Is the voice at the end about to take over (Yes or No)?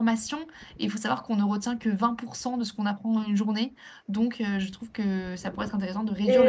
Yes